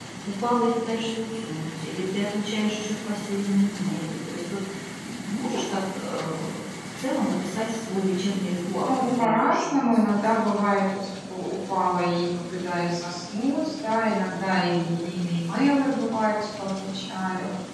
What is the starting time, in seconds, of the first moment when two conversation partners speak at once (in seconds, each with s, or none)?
8.8 s